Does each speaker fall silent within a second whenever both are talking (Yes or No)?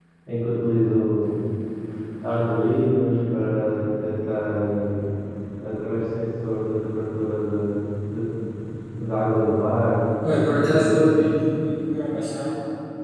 Yes